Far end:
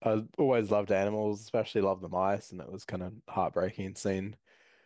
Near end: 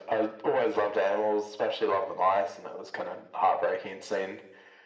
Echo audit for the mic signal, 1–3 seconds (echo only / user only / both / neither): echo only